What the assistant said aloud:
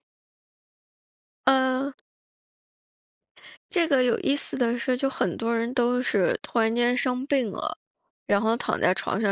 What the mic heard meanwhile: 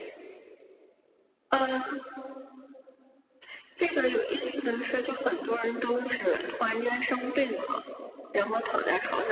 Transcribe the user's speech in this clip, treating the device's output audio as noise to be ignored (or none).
none